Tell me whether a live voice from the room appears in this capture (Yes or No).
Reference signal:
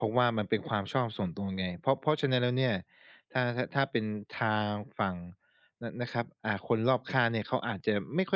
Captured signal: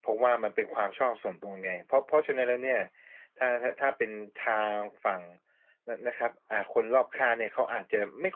No